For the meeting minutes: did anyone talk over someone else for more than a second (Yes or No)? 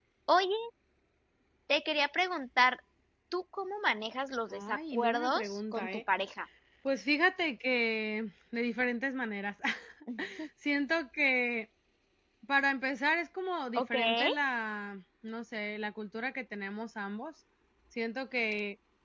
Yes